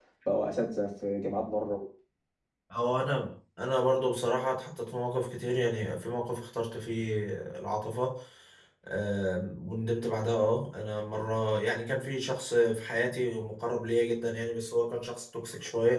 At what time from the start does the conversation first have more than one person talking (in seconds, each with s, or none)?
none